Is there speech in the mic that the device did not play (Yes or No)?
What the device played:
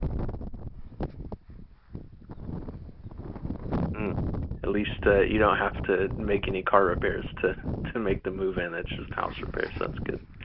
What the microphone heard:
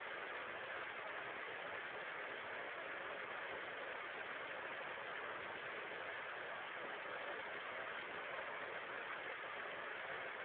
No